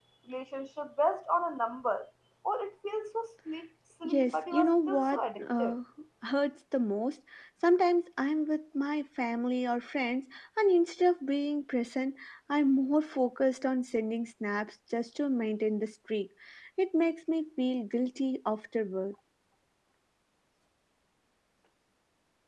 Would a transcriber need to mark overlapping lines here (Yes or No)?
Yes